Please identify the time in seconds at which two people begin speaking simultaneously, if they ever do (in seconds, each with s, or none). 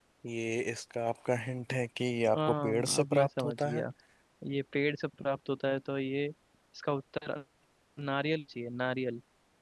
2.3 s